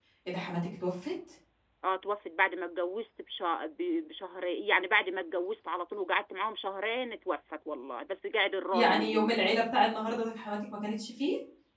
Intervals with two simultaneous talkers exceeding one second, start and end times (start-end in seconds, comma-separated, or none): none